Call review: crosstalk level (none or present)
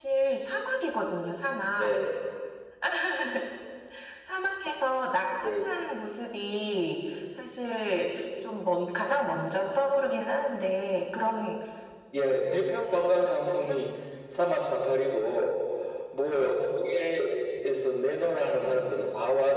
present